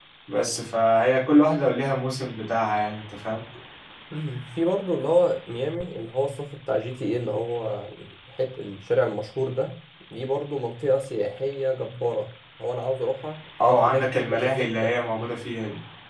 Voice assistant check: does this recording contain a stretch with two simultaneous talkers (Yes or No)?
Yes